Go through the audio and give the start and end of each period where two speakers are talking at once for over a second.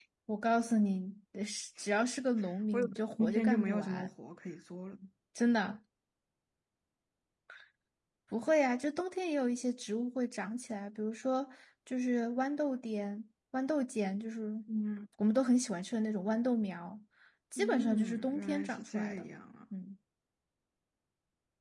2.7-4.1, 17.6-19.3

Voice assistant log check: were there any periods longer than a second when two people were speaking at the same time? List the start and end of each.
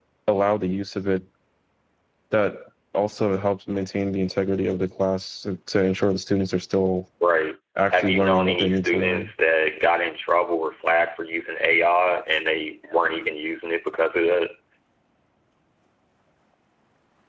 7.9-9.3

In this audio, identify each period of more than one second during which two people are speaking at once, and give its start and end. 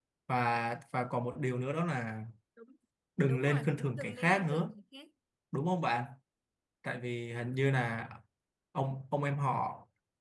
3.3-4.7

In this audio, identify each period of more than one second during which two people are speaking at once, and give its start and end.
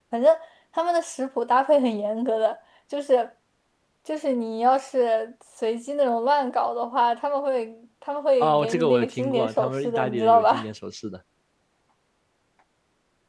8.4-10.6

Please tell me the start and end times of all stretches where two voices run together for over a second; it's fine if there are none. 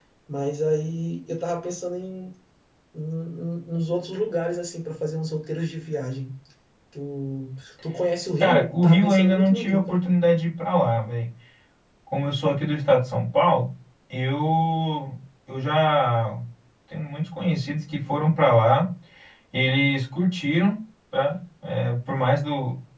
8.4-10.0

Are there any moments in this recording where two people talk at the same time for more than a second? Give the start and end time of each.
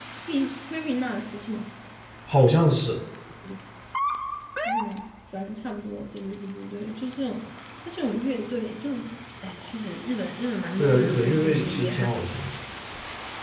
10.8-12.1

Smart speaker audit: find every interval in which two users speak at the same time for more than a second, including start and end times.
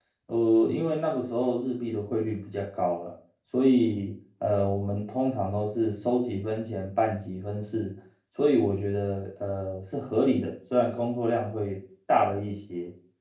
none

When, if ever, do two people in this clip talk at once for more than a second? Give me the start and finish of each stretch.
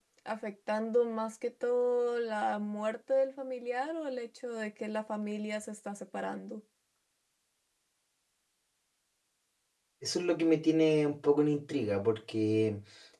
none

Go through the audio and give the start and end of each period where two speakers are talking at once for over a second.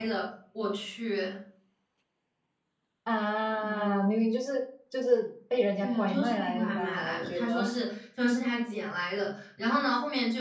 5.8-7.6

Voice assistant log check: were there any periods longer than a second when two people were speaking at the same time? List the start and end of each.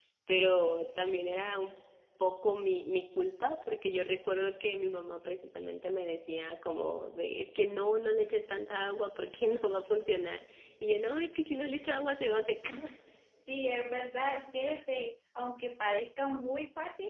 none

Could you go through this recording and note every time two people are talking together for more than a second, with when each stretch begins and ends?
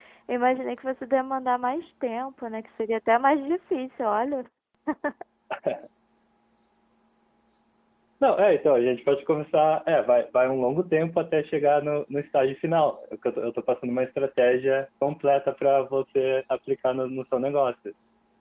none

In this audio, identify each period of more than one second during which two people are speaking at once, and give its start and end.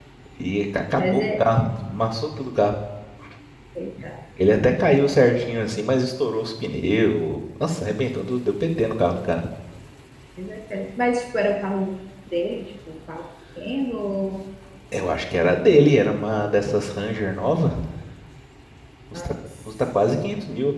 none

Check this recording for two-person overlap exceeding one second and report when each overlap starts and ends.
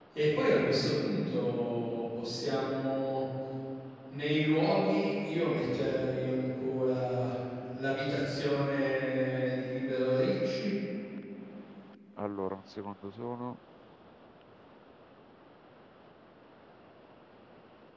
none

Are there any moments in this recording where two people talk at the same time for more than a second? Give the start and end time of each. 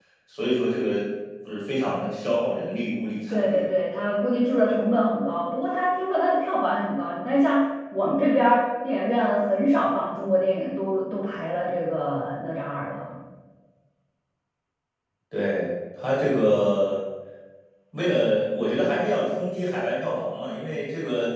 none

